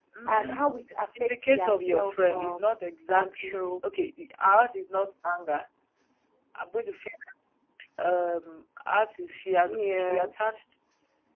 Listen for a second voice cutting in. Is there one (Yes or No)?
Yes